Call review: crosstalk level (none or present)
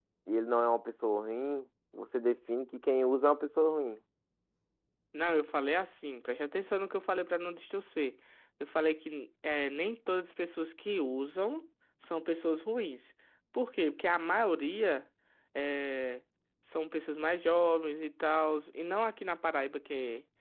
none